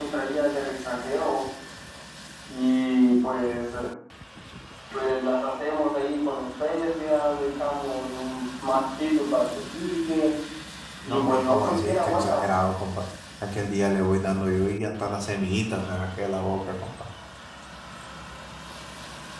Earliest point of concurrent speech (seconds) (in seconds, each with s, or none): 11.1 s